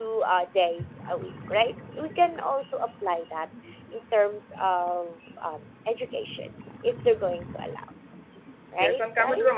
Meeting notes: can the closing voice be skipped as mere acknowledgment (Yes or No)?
No